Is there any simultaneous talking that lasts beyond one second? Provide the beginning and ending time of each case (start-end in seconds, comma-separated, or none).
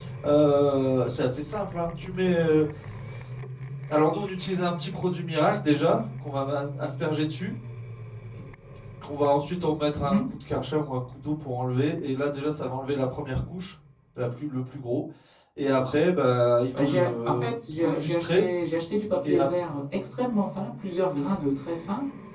16.8-18.4